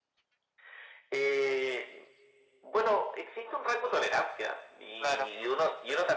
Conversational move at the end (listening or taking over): listening